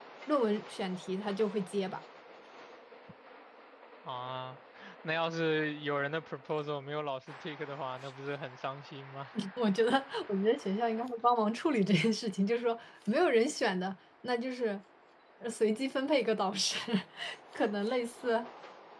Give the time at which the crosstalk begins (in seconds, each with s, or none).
none